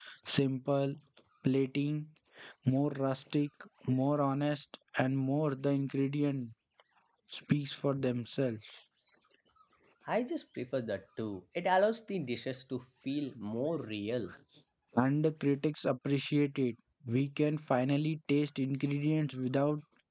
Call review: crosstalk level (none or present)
none